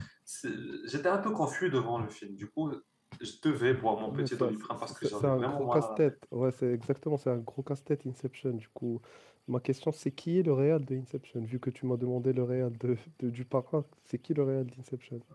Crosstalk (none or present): present